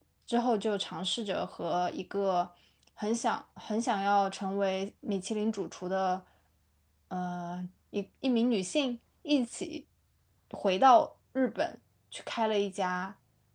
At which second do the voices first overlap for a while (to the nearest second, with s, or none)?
none